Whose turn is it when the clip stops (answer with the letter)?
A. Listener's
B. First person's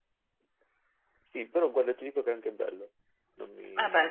A